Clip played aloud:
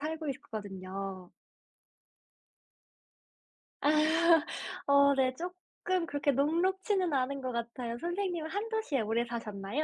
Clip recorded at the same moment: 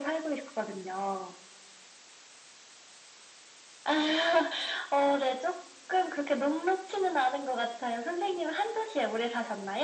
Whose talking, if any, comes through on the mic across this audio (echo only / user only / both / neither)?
echo only